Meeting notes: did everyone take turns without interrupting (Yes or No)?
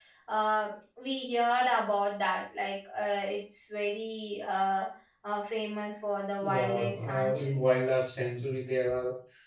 No